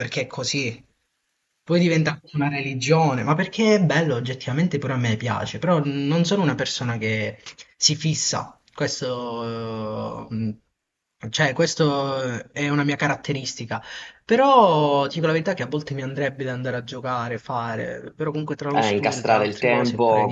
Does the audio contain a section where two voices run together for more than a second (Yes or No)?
Yes